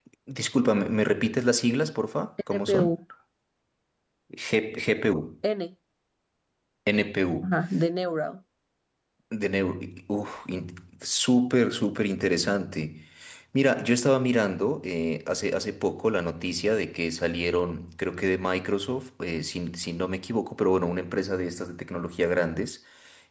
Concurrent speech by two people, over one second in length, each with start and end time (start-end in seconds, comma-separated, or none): none